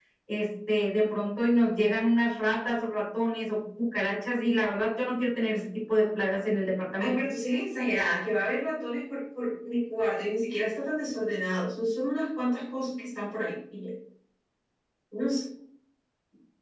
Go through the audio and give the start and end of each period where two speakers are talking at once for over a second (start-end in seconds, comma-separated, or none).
none